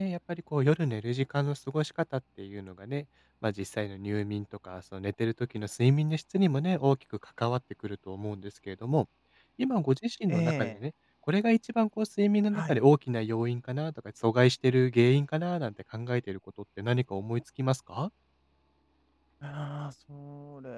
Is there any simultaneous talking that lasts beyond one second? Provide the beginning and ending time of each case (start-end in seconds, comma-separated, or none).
none